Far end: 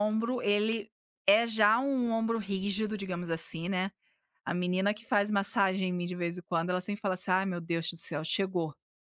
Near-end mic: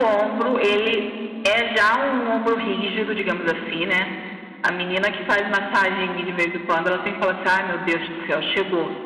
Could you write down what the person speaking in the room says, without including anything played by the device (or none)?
none